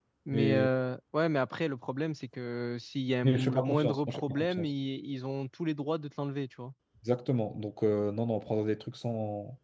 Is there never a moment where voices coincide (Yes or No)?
No